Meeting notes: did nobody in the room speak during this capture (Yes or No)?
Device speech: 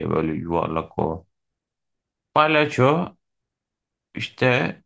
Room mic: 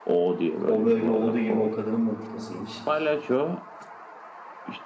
No